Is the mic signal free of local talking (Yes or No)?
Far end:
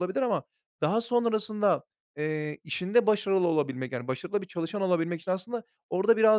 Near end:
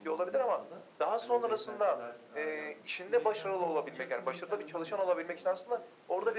No